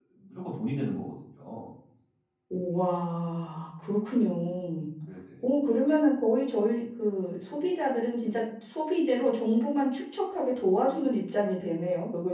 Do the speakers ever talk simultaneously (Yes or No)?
No